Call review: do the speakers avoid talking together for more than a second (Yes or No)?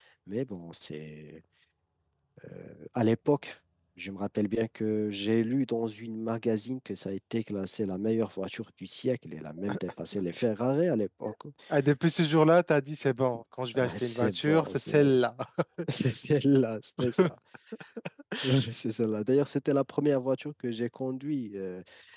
No